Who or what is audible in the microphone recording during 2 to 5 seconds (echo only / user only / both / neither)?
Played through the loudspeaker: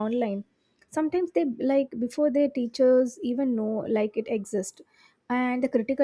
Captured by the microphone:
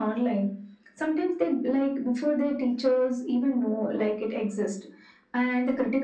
echo only